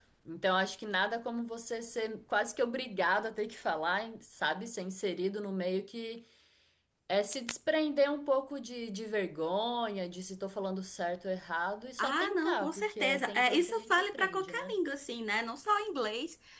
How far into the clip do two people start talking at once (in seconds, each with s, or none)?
12.0 s